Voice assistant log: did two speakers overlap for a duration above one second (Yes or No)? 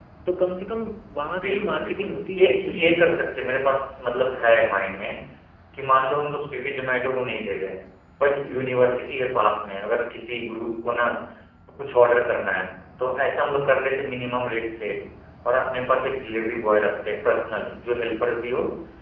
Yes